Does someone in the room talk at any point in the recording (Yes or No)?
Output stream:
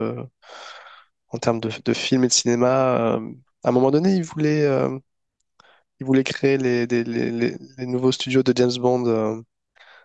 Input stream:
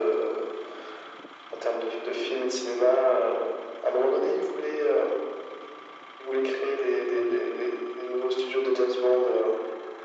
Yes